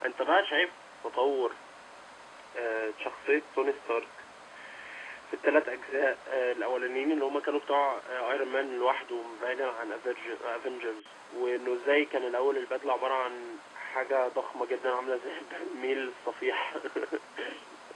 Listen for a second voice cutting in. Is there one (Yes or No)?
No